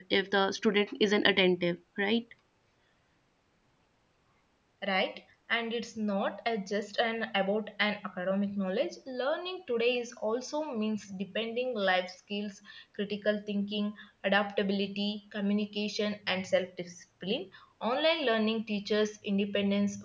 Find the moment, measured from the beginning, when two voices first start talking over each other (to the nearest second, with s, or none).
none